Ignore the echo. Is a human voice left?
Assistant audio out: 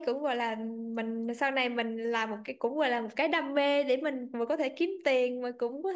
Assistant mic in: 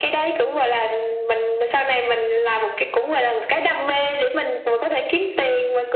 No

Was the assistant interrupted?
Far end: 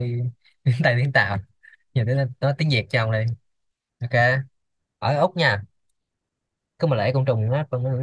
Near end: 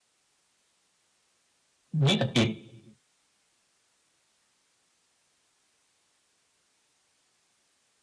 Yes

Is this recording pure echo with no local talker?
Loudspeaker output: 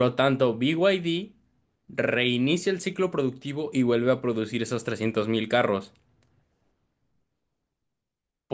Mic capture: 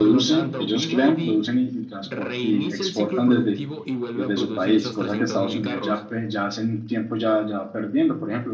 No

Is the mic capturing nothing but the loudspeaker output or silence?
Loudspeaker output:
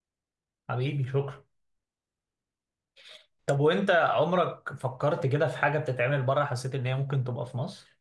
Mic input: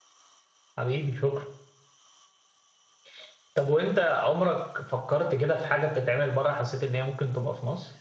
Yes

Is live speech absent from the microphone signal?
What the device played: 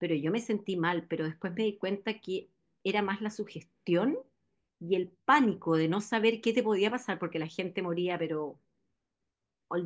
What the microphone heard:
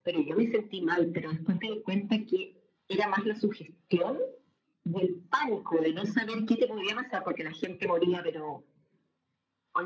Yes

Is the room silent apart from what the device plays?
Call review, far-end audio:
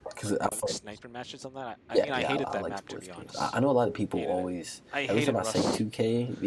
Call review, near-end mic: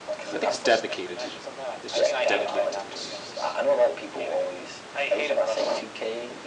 No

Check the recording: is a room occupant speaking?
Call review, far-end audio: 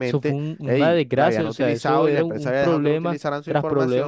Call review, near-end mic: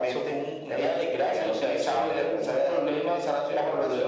No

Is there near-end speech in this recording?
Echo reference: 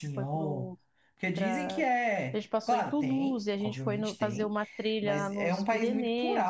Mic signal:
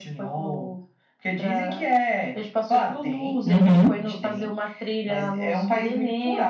Yes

